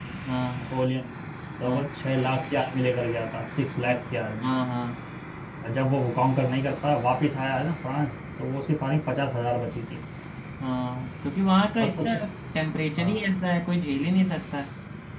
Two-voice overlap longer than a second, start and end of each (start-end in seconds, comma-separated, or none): none